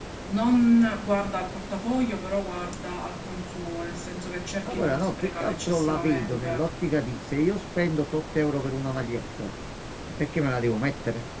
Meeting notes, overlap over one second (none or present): present